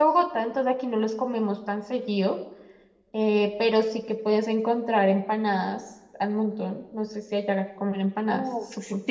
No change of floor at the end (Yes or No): No